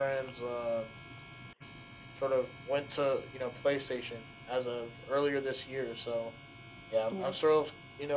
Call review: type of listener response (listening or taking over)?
listening